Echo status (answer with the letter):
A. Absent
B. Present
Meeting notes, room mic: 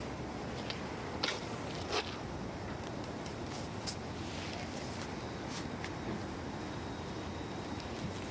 A